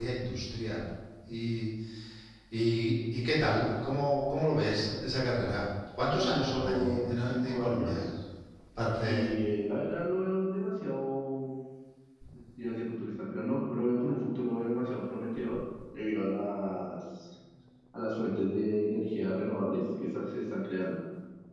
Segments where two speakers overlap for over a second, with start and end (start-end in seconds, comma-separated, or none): 6.0-8.0